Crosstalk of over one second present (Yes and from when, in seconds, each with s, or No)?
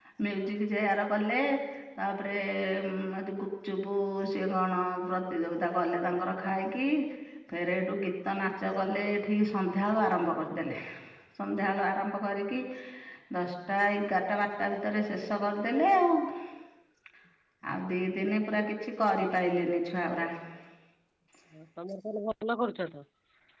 No